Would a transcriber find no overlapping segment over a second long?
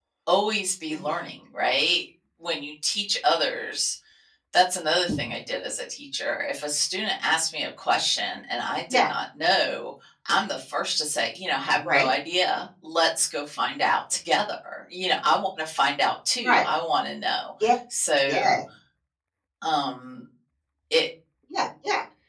Yes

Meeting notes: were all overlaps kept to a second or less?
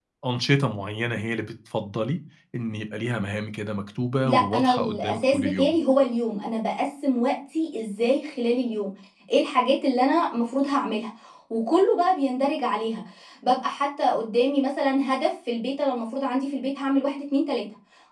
No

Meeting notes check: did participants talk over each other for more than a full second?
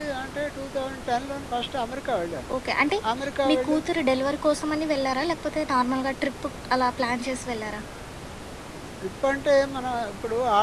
No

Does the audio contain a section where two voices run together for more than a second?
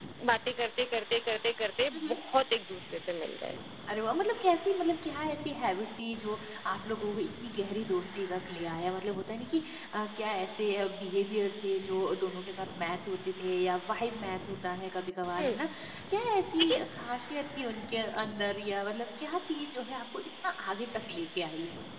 No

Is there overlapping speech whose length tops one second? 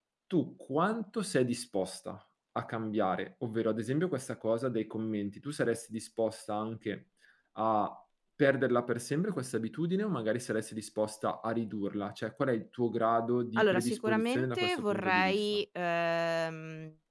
Yes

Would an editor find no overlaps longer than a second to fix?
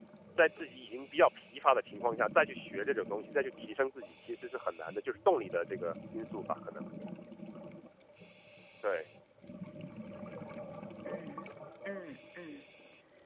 Yes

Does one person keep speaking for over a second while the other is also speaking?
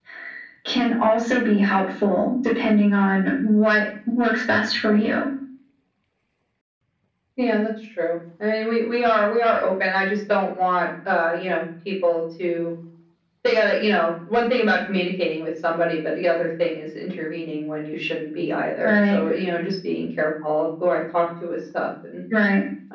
No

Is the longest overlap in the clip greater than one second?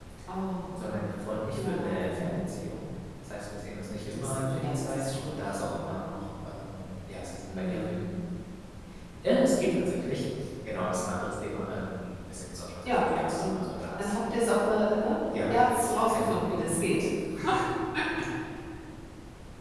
Yes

